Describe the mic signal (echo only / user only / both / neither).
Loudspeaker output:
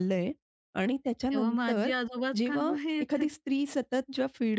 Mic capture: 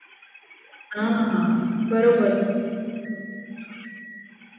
user only